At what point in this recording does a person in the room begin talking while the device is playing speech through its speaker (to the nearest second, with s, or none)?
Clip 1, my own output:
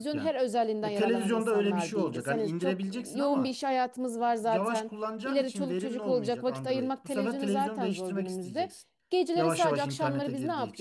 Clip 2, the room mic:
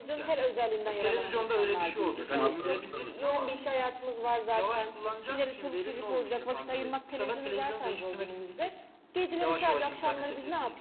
2 s